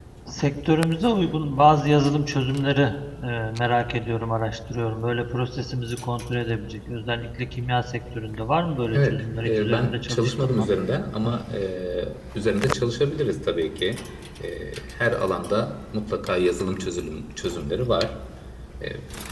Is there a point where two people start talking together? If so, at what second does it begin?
9 s

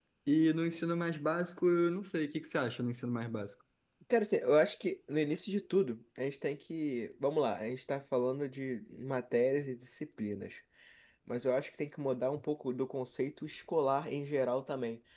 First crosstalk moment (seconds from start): none

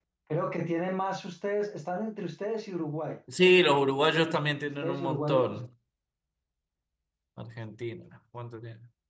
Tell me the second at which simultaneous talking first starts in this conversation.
4 s

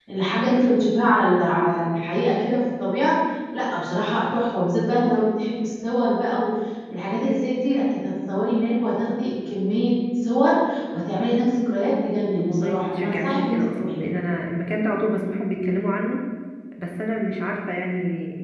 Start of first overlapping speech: 12 s

